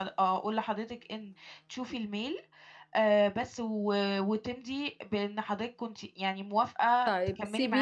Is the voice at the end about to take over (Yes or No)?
Yes